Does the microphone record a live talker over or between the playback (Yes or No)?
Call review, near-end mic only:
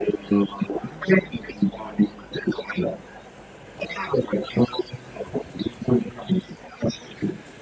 No